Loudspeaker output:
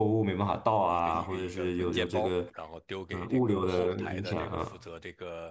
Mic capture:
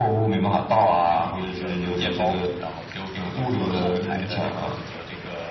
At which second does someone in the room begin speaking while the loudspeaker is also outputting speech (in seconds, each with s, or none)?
none